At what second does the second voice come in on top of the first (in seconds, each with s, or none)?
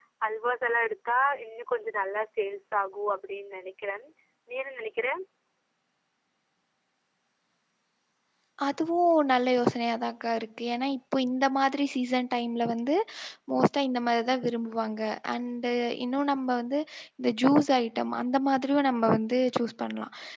none